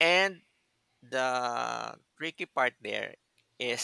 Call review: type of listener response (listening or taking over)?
listening